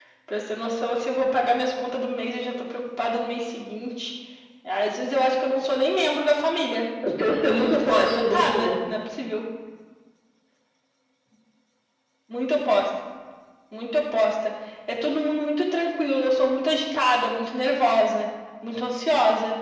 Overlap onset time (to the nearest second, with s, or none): 7 s